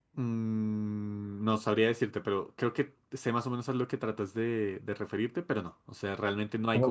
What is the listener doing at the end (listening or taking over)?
taking over